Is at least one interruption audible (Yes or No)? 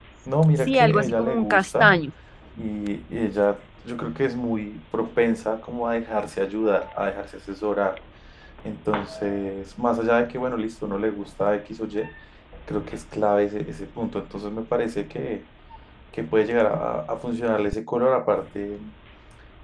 Yes